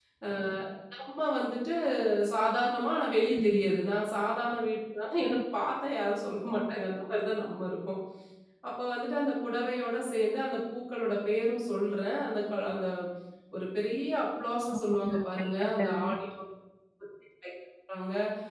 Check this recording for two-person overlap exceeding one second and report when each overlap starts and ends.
14.8-16.0

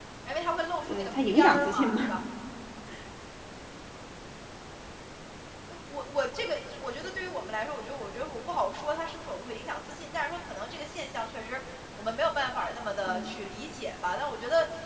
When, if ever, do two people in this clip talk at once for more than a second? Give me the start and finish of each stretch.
0.9-2.1

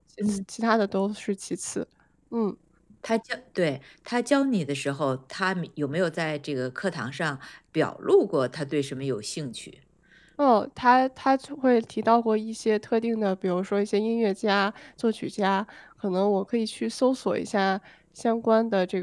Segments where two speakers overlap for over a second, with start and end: none

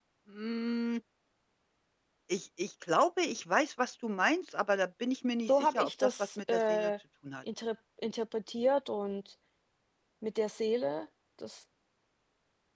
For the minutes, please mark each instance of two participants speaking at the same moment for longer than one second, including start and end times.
5.5-6.9

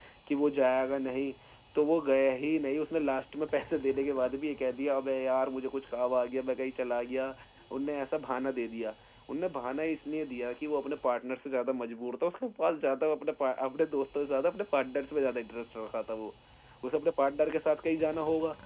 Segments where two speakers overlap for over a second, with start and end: none

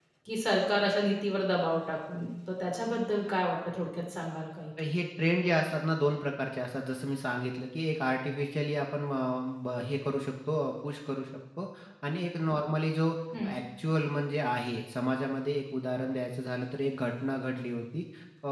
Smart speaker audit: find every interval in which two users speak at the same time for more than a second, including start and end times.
none

